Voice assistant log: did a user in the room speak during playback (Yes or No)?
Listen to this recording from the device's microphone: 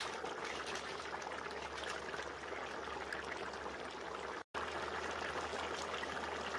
No